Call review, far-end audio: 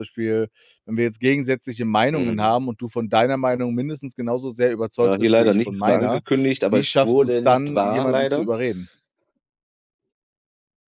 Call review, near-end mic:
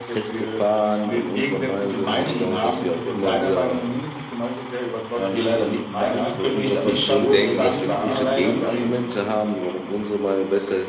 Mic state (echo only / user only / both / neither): both